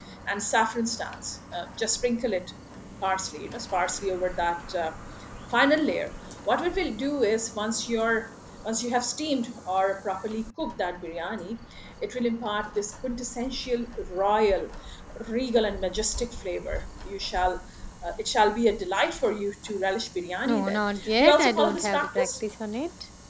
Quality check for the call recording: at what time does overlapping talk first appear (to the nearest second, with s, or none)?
20 s